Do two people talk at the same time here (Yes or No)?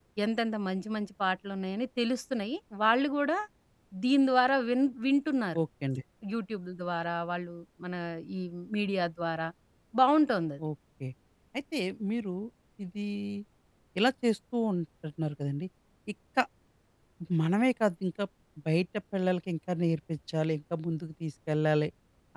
No